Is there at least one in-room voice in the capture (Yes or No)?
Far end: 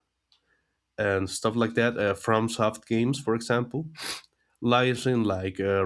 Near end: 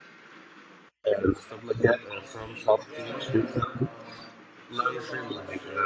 Yes